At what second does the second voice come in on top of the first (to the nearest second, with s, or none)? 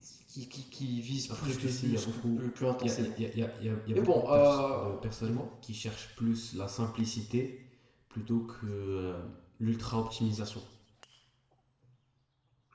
1 s